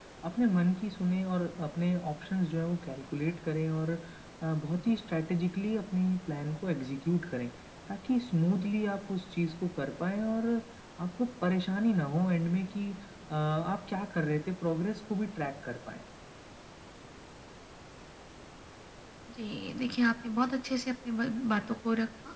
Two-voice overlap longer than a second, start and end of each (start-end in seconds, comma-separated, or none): none